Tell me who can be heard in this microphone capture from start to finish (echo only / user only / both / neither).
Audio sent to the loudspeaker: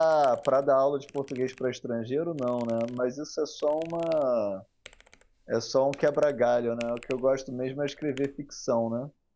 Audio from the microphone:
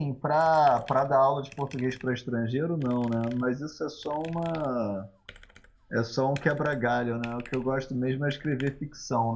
echo only